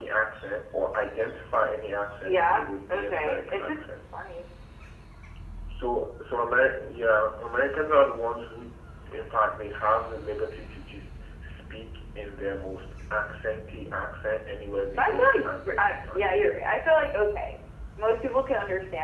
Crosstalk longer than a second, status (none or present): present